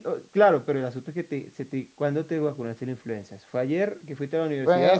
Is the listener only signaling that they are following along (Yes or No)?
No